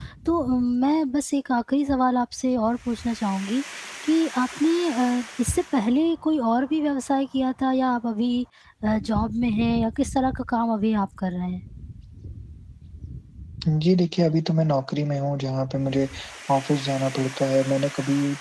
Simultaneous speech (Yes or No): No